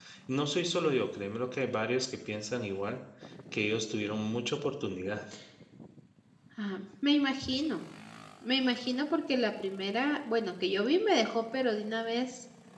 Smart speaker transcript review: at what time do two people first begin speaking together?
none

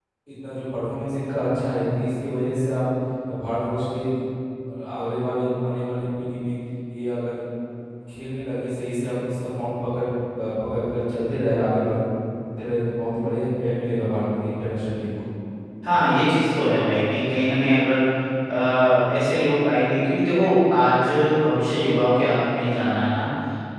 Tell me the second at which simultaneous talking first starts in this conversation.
none

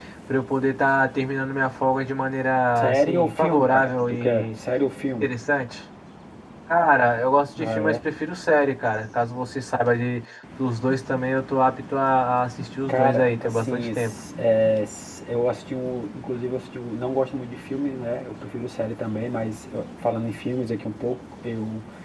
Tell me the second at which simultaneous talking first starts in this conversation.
2.8 s

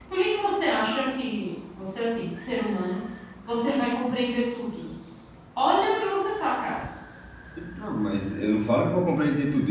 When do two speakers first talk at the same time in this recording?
none

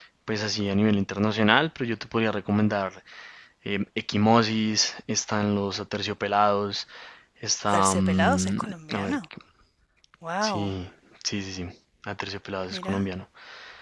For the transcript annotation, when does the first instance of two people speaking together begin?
7.7 s

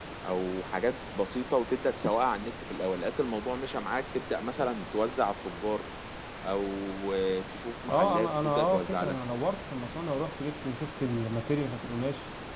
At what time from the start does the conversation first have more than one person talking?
7.9 s

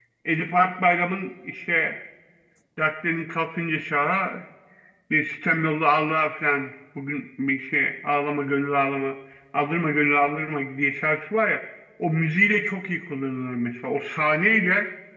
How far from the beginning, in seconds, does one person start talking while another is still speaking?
none

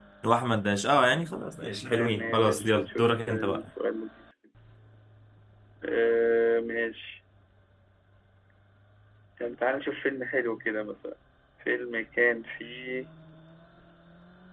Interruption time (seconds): 1.6 s

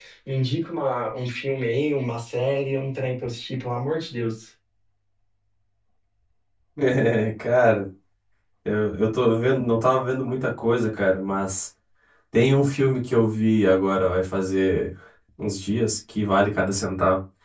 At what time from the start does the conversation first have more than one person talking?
none

